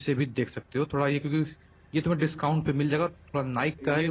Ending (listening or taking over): taking over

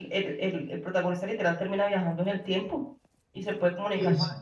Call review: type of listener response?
listening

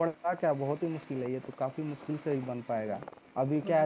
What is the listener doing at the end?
listening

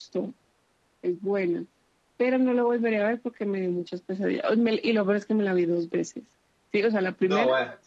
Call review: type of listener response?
listening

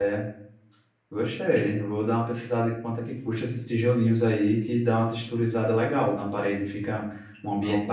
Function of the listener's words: listening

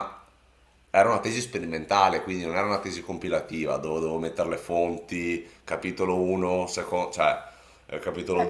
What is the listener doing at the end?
taking over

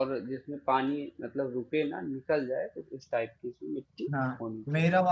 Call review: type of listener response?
taking over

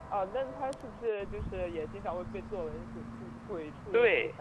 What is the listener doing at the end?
taking over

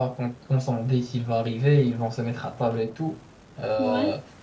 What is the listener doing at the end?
listening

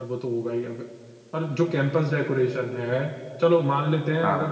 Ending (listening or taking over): listening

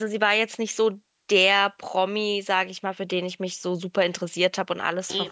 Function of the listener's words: listening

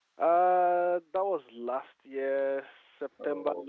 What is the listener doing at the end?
listening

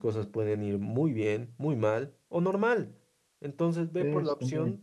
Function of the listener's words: listening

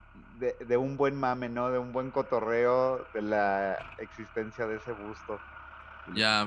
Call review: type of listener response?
taking over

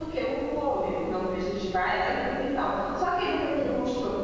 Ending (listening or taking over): listening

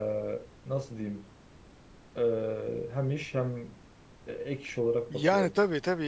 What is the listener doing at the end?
taking over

